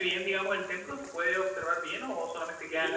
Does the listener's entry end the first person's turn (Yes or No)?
Yes